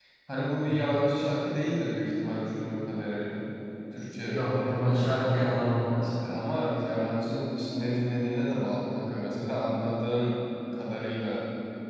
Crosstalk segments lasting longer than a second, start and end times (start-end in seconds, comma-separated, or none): none